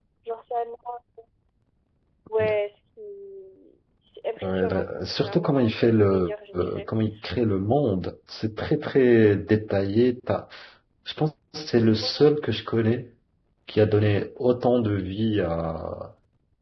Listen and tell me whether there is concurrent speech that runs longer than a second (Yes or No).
Yes